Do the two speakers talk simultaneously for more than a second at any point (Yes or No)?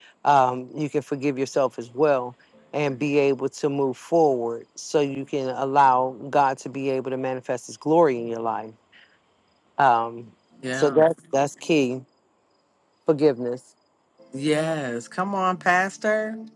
No